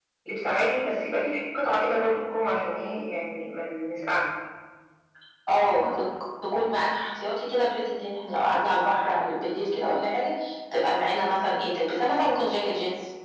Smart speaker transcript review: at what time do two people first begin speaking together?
none

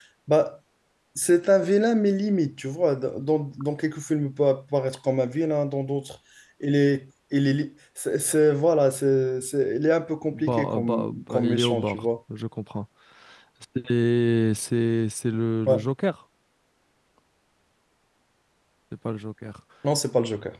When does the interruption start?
10.3 s

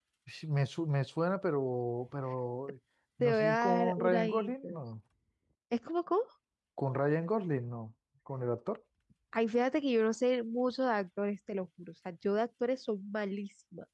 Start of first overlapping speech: 3.2 s

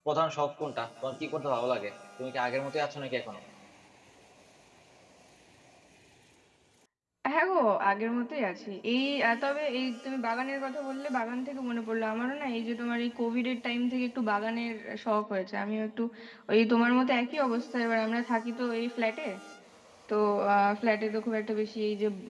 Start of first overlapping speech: none

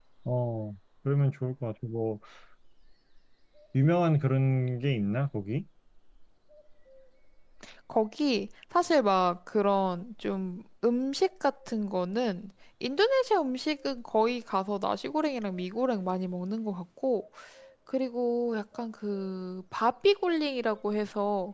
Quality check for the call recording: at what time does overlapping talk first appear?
none

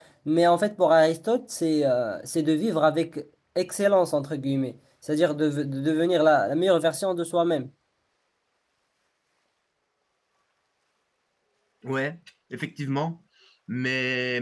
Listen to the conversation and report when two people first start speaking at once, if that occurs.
none

